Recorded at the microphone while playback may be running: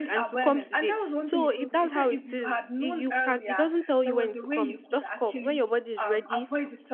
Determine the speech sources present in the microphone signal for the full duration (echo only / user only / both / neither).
both